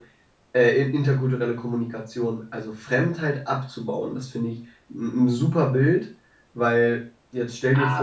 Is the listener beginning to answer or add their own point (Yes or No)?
Yes